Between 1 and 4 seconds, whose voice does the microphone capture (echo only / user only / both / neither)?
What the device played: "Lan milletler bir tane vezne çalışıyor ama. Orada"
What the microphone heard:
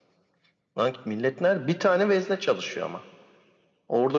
echo only